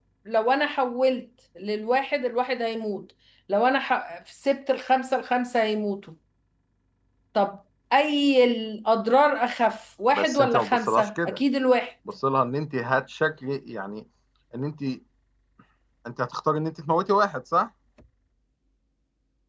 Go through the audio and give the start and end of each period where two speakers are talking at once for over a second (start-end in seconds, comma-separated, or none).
10.2-11.4